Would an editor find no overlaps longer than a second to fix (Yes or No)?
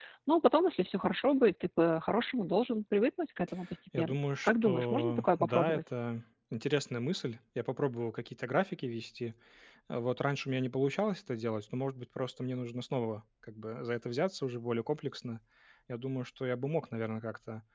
No